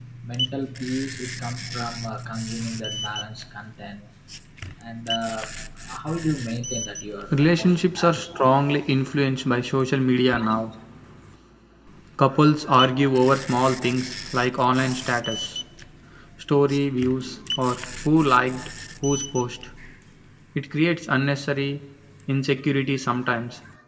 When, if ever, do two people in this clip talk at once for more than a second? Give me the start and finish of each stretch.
7.3-8.6

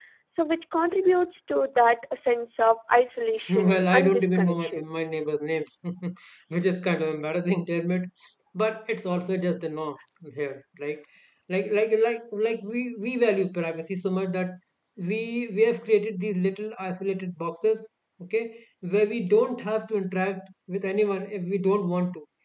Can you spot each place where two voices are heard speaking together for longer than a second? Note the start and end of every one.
3.5-4.9

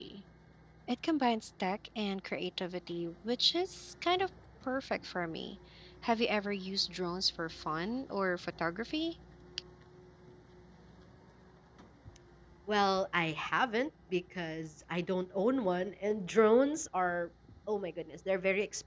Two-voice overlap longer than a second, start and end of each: none

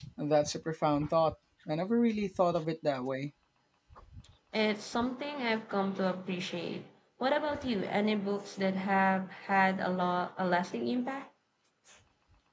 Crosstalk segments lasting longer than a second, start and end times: none

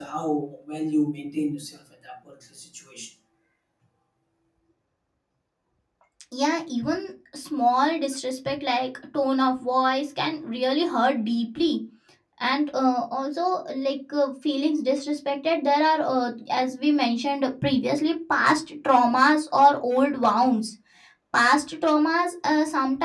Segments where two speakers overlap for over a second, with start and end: none

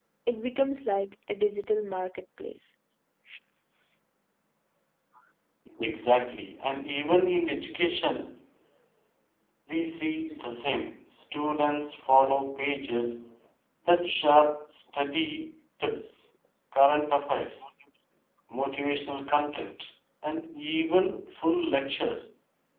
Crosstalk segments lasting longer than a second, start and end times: none

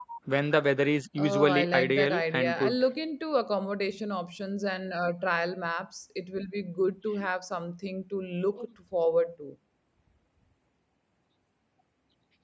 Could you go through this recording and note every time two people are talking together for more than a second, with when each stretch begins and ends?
1.2-2.7

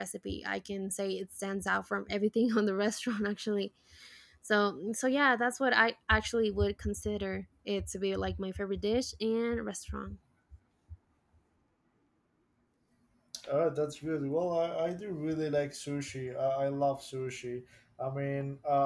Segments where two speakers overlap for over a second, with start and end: none

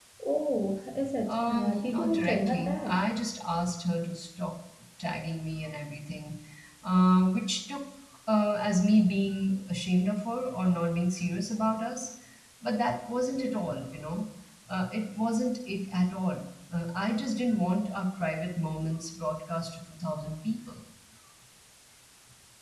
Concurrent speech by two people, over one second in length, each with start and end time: 1.3-3.0

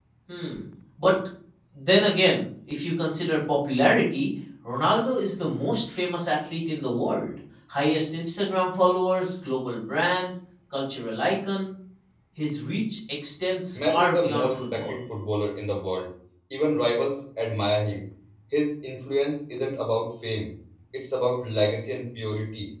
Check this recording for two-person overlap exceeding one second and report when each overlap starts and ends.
13.8-15.0

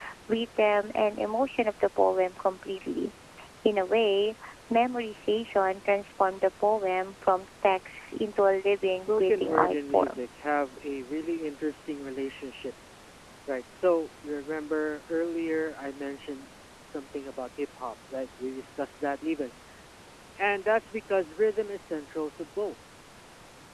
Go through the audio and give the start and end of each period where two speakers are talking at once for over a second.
8.9-10.2

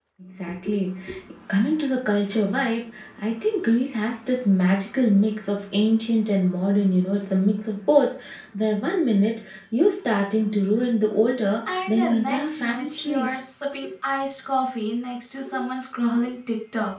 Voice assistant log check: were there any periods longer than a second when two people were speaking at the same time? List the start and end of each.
11.7-13.3

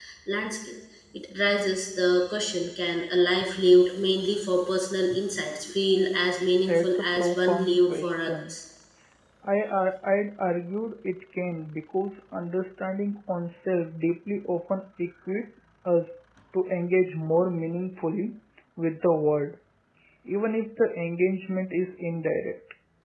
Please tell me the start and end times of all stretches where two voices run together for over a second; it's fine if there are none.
6.7-8.5

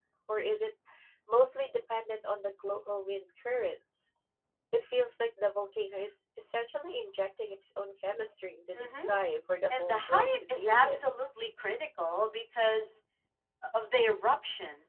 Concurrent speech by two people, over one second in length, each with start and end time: 9.8-11.0

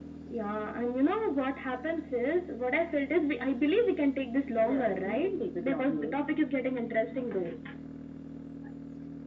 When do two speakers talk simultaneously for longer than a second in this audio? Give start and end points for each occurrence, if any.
4.6-6.2

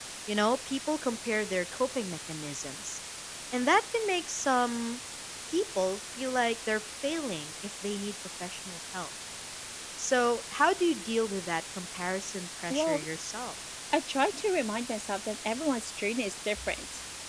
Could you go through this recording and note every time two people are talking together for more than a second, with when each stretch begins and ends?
none

